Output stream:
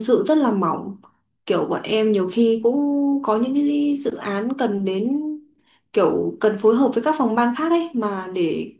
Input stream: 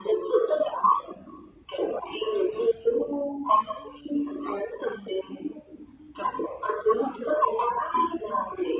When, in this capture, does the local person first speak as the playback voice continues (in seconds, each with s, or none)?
none